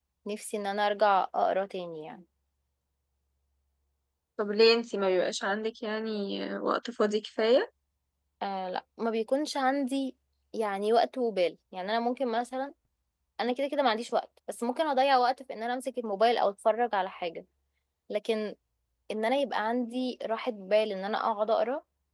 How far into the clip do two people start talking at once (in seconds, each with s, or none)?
none